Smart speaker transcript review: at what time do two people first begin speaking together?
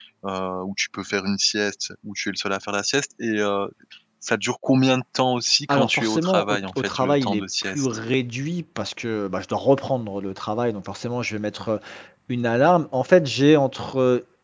5.7 s

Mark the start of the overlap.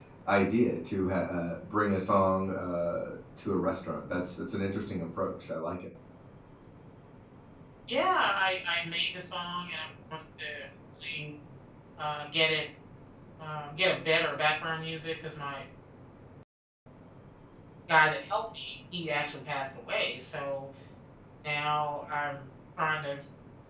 none

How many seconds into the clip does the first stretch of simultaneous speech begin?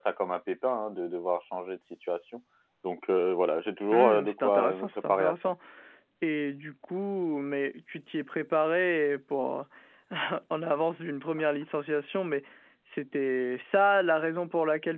3.9 s

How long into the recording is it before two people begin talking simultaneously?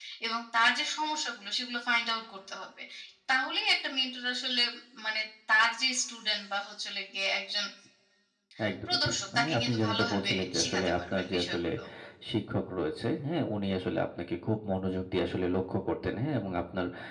8.9 s

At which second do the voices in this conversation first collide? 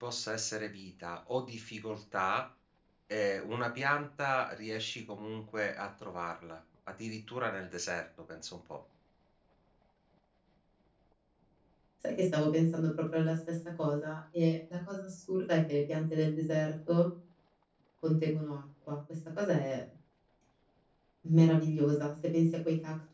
none

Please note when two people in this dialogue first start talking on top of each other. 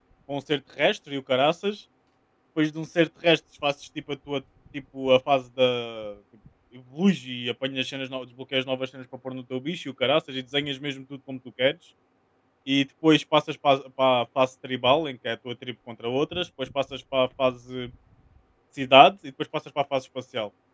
none

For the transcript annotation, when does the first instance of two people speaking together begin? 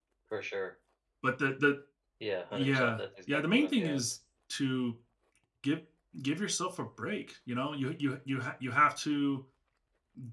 2.5 s

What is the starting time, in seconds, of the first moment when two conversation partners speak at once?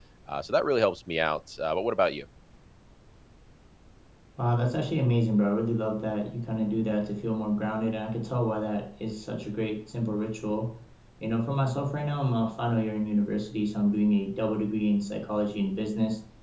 none

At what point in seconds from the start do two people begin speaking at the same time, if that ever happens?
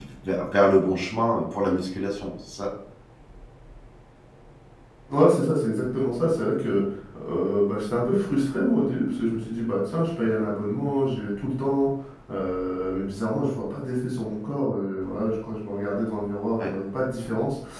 none

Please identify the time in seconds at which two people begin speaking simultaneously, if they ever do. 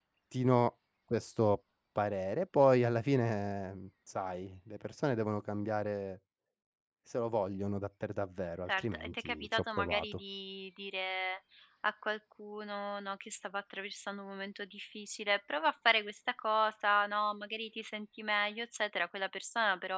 8.7 s

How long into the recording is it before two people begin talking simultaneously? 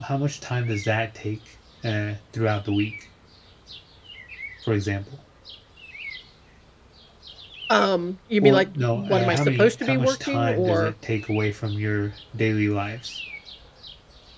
8.4 s

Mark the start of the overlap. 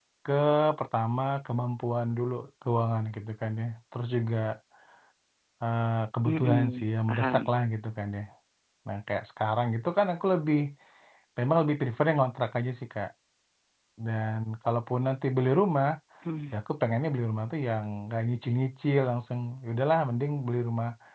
6.2 s

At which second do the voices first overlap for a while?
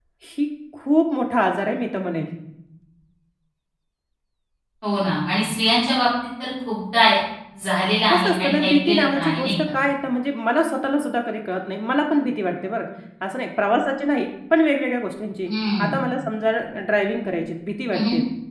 8.1 s

